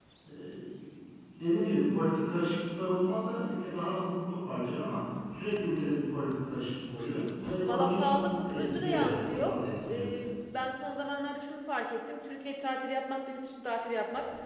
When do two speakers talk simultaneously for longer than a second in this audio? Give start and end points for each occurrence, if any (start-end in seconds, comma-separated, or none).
7.7-9.5